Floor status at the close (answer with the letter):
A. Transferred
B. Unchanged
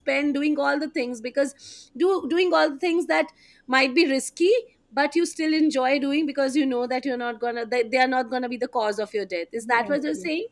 A